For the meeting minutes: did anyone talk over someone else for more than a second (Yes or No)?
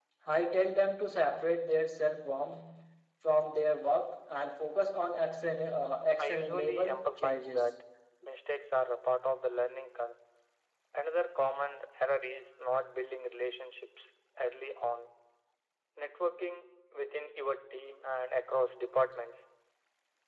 Yes